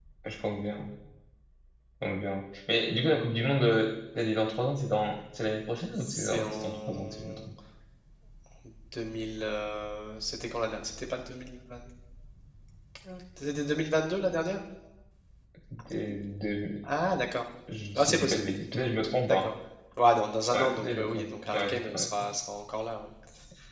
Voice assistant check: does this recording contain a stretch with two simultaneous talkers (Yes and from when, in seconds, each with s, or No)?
Yes, from 6.0 s